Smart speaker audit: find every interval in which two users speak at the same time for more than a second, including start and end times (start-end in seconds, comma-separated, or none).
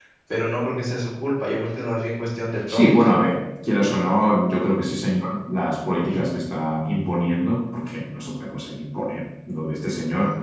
none